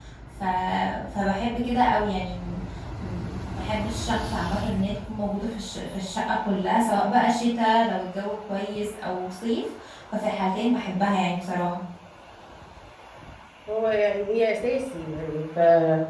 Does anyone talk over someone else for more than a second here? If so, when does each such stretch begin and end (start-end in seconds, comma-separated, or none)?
none